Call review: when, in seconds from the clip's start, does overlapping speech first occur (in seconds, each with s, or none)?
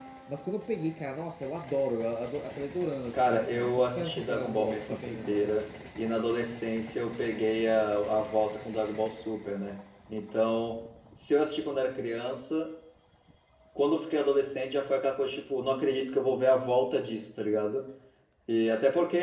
3.1 s